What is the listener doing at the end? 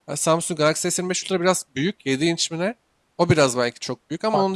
taking over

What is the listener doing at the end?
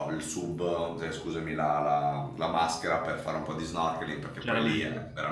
listening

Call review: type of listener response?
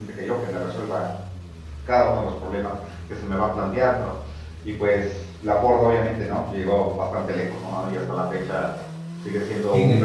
listening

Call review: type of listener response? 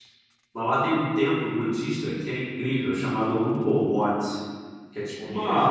taking over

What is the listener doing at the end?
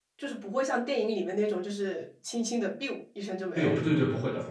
taking over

